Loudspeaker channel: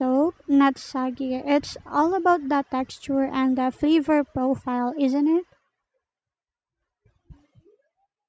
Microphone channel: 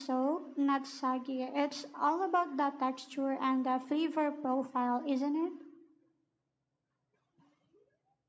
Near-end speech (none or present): none